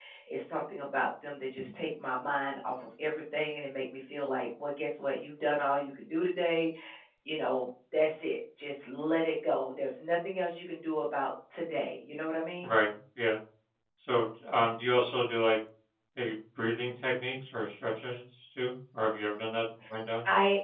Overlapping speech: No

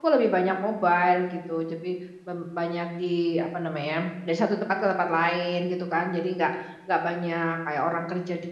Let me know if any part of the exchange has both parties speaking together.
No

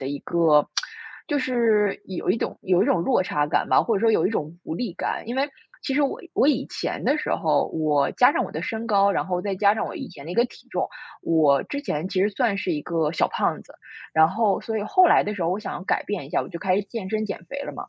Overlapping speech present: No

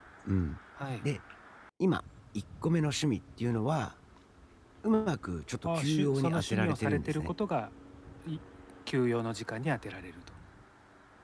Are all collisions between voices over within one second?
No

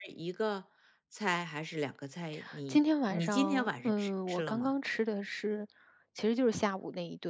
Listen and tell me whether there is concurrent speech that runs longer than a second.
Yes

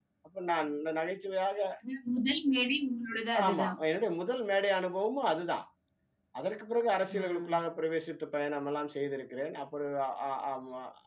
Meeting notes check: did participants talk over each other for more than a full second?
No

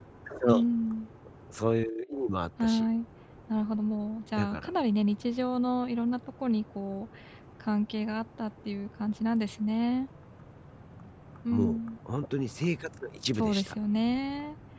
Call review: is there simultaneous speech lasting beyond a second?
No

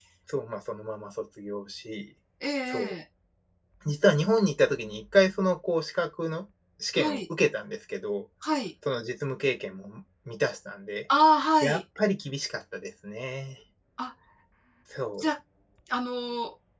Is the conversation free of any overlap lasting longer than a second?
Yes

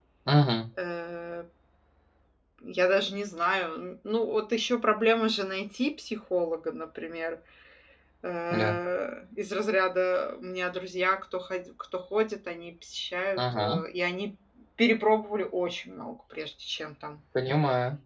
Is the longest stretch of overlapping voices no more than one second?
Yes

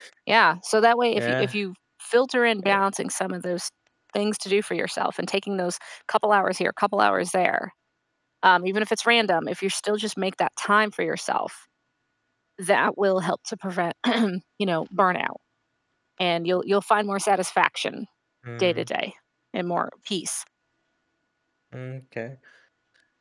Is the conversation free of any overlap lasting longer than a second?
Yes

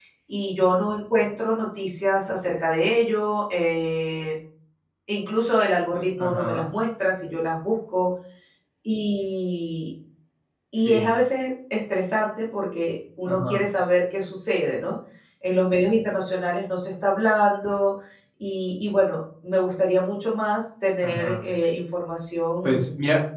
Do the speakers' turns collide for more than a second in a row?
No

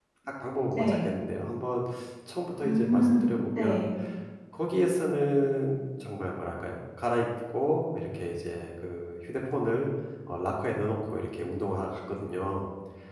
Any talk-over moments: Yes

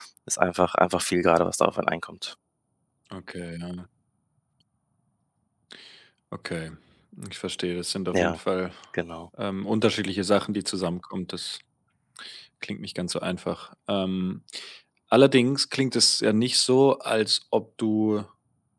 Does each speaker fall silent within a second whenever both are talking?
Yes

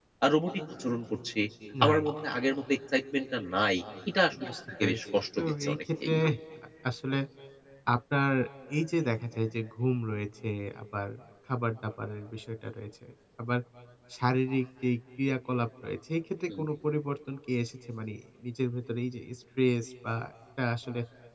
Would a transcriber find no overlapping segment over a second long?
No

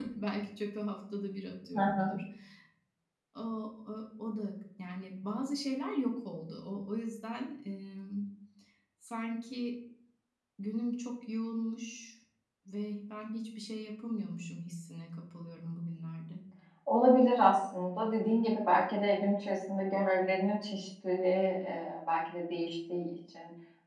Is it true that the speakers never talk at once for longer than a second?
Yes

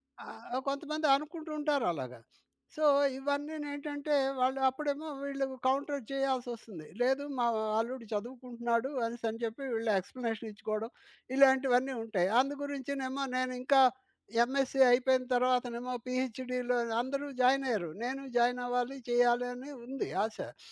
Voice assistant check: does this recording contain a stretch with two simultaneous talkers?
No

